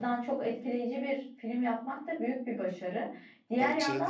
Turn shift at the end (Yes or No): No